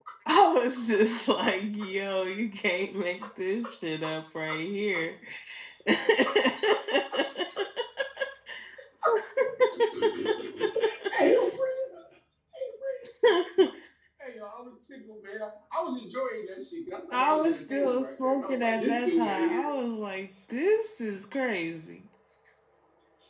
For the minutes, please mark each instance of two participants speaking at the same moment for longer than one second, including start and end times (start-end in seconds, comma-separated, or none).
17.1-19.7